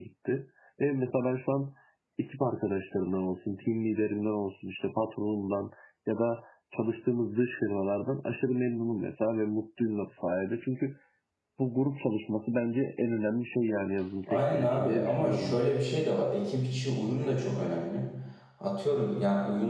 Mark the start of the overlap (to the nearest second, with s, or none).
14 s